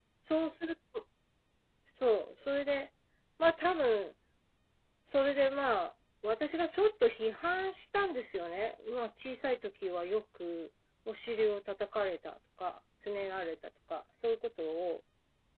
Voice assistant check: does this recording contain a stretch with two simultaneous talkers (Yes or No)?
No